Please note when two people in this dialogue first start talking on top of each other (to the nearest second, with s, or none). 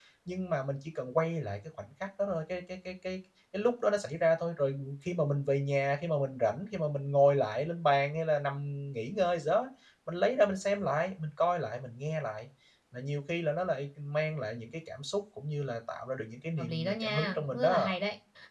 17 s